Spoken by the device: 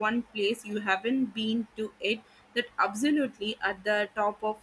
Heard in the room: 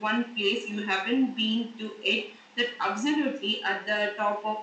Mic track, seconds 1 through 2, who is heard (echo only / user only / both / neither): echo only